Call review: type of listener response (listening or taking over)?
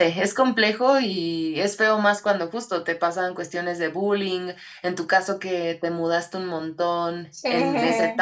listening